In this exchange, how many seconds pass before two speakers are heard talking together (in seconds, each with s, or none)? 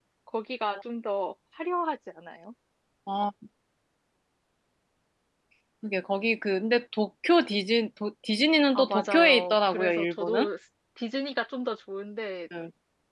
8.8 s